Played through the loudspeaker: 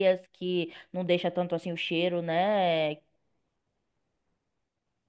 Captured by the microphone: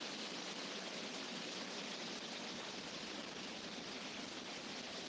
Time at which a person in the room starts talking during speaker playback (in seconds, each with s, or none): none